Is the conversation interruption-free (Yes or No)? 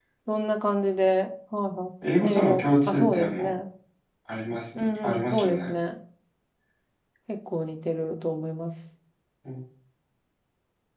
No